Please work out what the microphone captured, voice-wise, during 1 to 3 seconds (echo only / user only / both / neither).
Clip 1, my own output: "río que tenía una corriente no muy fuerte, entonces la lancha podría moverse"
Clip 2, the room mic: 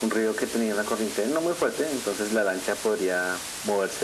echo only